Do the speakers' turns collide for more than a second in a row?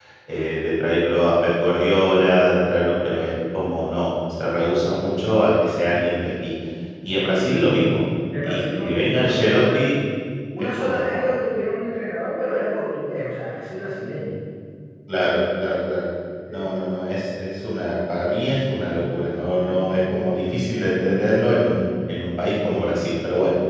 Yes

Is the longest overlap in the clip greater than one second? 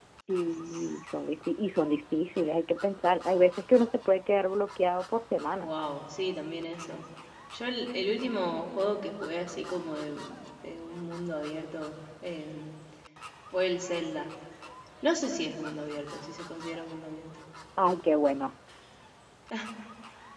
No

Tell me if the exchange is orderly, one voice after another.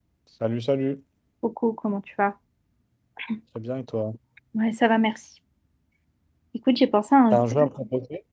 Yes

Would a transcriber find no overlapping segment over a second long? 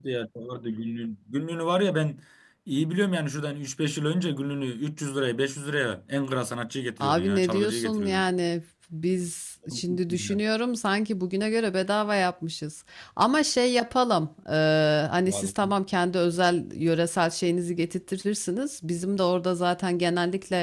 No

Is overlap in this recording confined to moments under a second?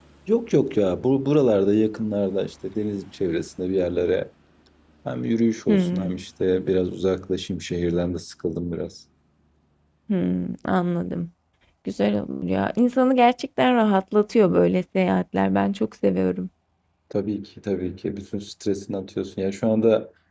Yes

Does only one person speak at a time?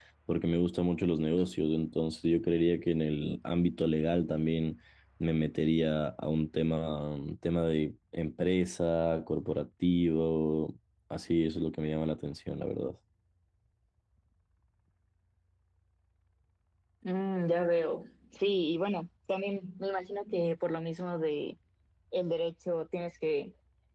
Yes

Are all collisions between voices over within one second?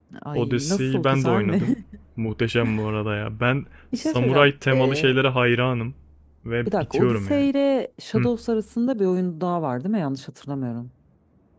No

